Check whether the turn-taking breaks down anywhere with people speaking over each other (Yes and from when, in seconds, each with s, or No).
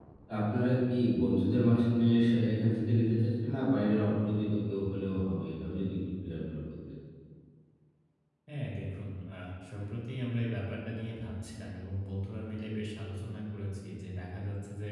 No